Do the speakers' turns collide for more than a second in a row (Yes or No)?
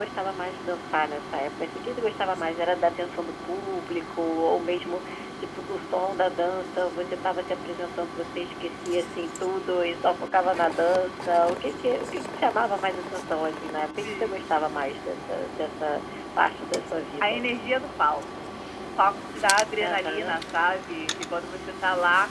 No